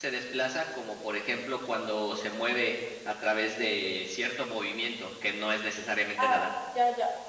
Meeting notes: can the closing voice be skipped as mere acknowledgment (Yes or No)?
No